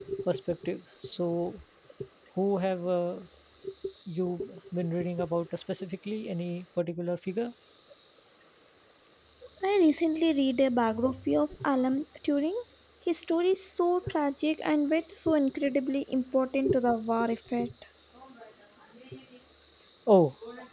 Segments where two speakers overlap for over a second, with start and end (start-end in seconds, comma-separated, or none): none